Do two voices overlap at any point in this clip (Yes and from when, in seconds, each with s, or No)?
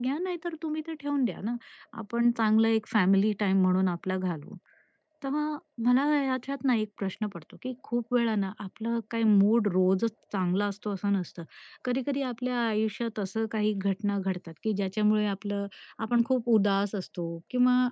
No